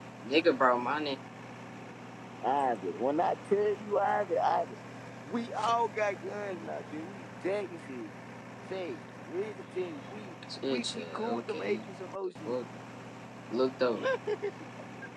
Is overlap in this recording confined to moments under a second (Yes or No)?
No